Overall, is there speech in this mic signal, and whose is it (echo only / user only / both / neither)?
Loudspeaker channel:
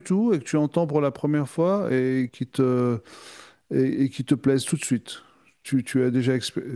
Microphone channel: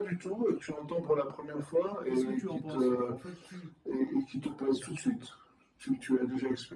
both